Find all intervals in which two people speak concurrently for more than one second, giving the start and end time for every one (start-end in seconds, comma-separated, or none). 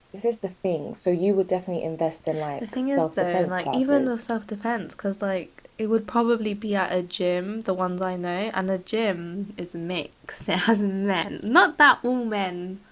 2.9-4.1